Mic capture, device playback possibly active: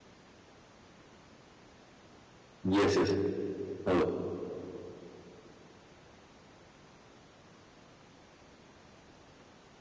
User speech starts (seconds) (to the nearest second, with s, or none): 3 s